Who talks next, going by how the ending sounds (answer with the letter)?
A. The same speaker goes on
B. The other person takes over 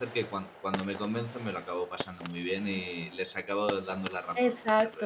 B